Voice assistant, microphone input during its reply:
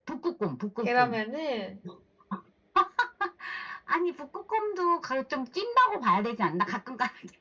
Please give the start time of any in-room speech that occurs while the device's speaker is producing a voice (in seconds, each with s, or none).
0.8 s